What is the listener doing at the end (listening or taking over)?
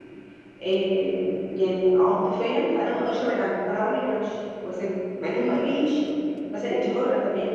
listening